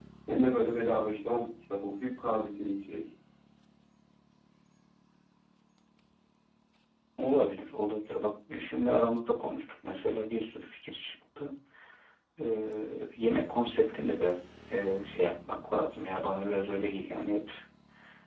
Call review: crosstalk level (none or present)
none